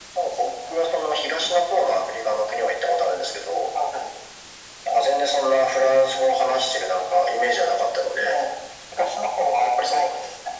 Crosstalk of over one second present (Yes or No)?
No